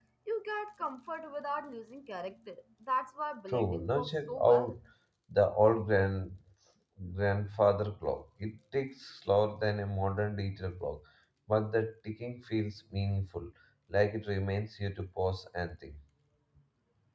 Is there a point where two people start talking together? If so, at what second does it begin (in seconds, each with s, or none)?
3.5 s